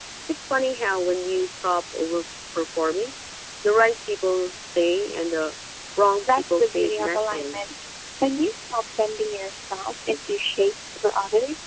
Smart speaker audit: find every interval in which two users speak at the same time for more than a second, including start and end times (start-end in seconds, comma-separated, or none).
6.3-7.6